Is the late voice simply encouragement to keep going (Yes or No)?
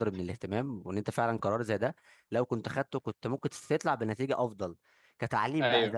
Yes